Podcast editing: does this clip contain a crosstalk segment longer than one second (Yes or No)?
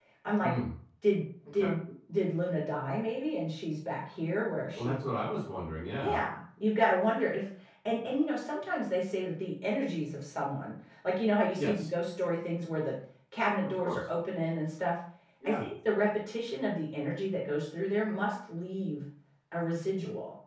No